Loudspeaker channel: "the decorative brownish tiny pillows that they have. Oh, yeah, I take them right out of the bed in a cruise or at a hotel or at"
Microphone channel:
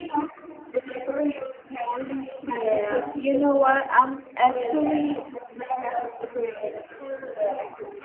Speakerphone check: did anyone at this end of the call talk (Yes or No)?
Yes